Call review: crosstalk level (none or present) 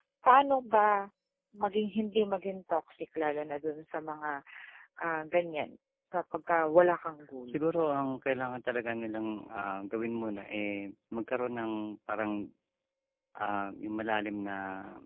none